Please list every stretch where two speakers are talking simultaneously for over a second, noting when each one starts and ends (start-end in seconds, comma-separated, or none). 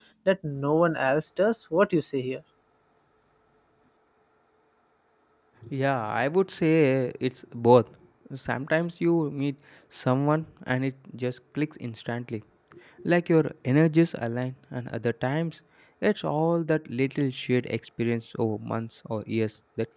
none